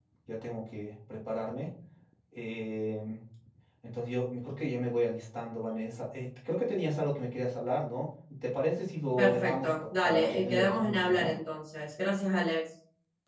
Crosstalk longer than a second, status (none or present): present